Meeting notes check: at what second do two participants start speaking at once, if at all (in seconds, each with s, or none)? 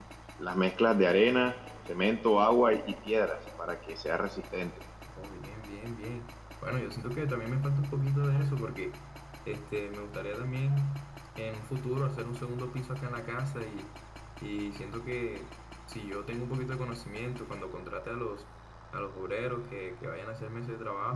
none